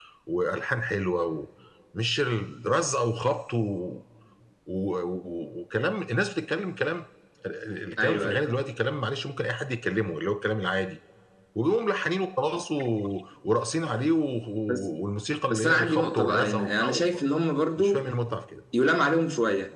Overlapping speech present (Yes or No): Yes